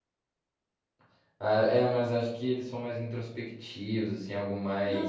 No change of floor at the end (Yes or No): No